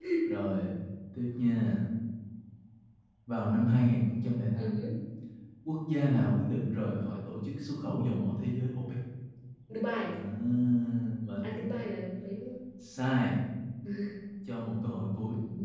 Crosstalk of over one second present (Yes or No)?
No